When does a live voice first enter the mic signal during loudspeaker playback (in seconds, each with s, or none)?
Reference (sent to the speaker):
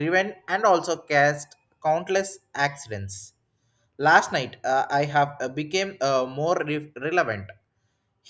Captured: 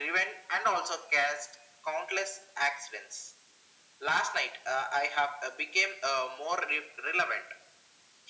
none